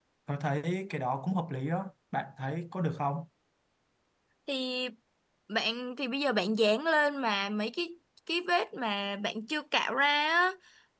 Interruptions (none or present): none